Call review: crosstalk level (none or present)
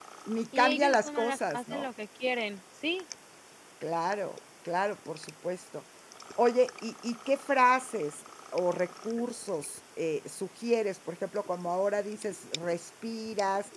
present